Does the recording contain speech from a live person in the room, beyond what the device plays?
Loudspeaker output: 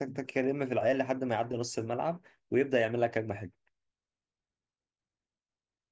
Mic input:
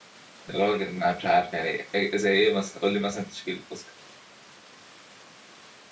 Yes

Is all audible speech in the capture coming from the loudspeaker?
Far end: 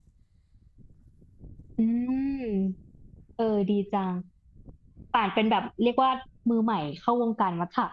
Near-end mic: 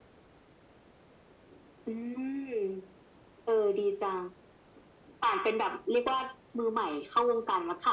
Yes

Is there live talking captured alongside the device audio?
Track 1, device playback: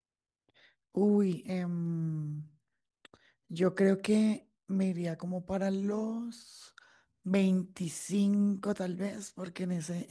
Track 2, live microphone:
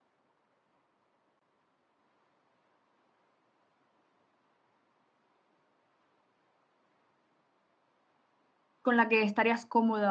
Yes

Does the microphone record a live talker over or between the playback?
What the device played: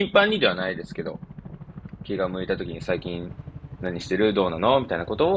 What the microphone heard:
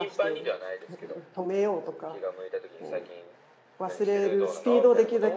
Yes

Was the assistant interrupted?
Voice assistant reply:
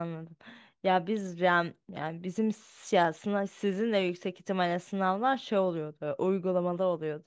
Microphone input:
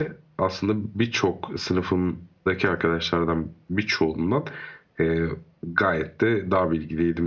Yes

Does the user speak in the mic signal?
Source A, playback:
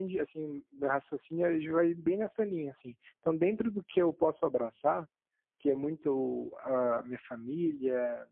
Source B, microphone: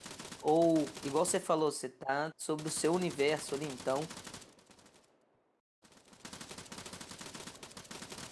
Yes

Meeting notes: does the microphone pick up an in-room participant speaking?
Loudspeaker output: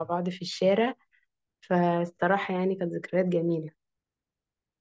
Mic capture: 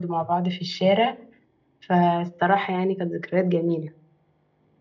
No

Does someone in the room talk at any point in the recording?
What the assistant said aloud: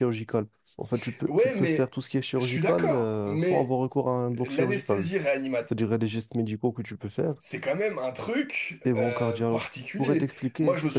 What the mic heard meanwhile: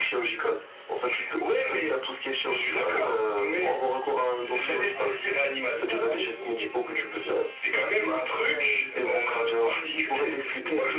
Yes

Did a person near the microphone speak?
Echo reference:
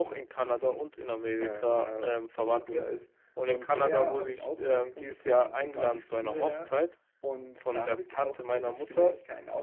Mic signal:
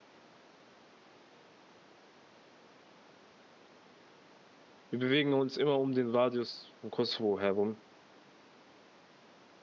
Yes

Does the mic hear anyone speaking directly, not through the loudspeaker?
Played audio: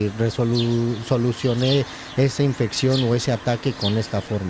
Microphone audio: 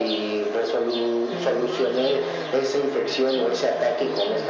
Yes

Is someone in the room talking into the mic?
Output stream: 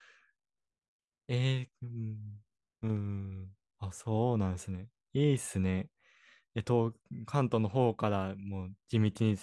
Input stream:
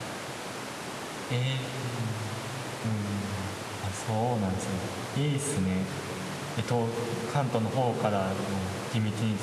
No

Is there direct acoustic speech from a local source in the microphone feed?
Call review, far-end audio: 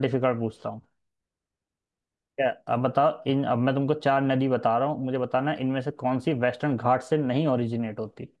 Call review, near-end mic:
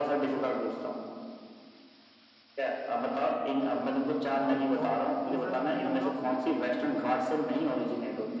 Yes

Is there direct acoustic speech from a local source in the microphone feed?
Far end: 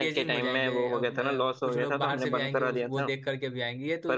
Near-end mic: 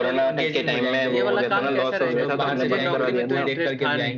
Yes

